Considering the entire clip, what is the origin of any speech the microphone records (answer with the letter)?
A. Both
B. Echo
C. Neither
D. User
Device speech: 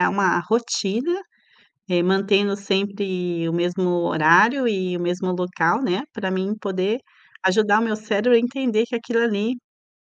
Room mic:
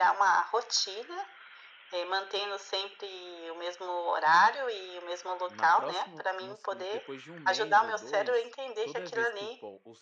A